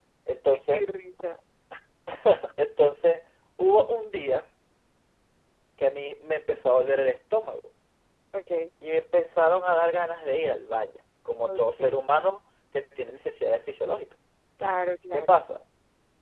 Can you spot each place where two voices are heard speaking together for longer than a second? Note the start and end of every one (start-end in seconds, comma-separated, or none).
none